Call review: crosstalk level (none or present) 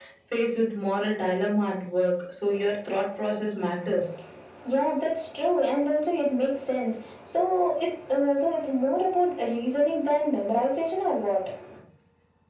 none